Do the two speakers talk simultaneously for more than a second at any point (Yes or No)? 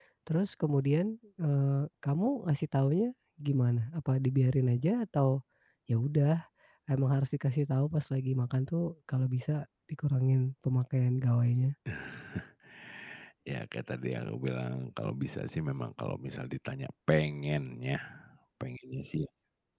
No